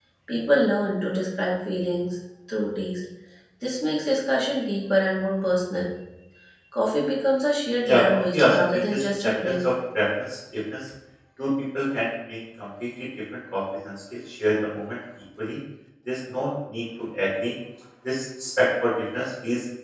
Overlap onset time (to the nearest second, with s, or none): 8 s